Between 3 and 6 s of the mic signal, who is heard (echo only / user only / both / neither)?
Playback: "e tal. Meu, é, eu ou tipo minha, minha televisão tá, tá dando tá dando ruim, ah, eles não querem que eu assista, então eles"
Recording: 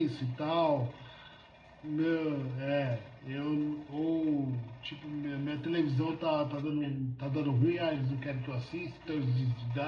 echo only